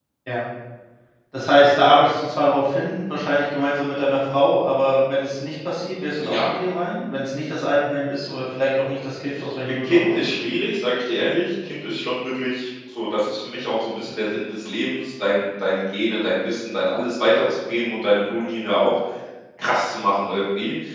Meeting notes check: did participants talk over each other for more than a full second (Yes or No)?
No